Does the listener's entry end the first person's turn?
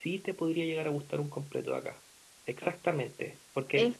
No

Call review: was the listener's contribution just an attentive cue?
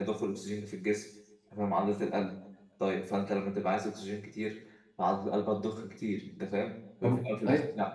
Yes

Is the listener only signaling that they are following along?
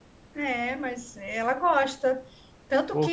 Yes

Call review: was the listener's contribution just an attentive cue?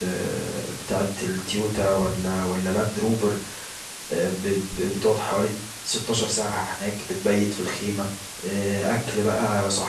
Yes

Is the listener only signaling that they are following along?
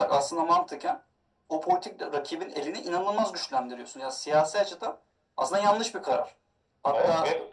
No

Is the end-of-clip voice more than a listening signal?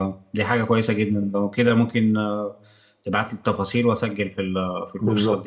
Yes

